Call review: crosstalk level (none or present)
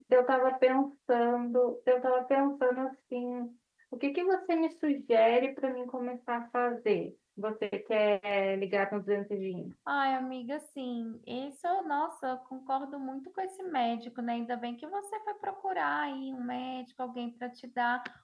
none